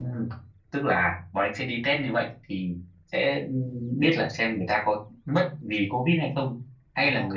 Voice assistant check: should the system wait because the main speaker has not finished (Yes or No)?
Yes